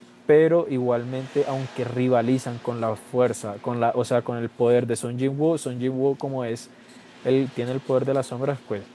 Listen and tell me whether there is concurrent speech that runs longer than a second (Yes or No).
No